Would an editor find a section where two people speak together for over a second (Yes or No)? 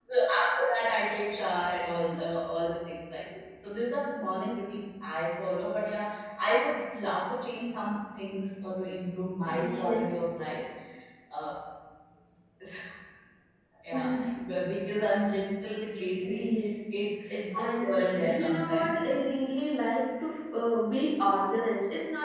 Yes